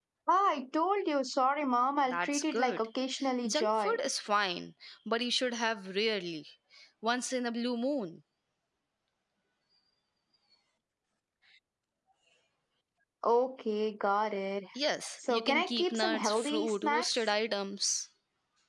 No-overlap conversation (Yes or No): No